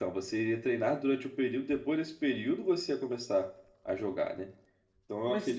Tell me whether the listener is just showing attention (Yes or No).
Yes